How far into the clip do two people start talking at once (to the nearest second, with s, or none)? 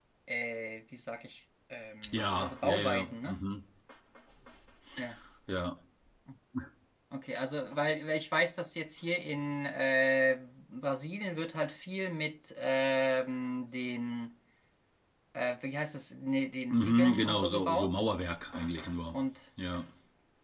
2 s